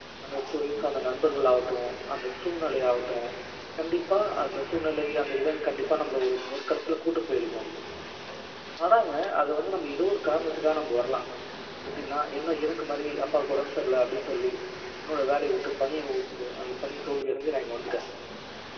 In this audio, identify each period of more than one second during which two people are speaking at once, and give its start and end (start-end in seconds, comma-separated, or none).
none